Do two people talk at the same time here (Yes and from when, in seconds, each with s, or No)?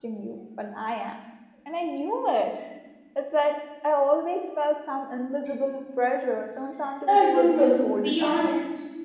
Yes, from 7.1 s